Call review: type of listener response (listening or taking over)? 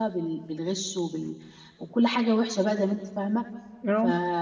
listening